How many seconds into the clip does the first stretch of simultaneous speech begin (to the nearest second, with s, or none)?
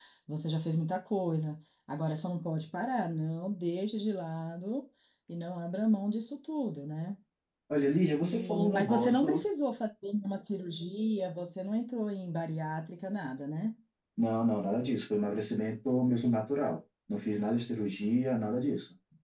8 s